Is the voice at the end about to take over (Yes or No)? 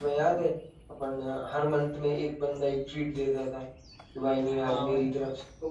No